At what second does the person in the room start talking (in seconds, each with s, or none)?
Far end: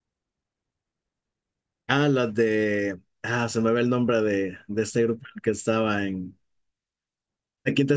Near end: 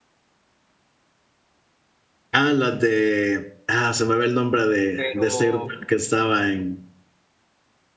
4.9 s